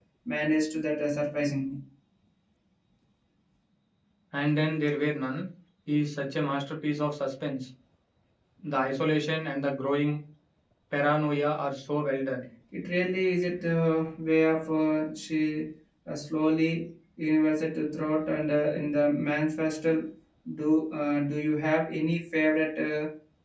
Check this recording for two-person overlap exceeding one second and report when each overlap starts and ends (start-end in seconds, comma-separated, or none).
none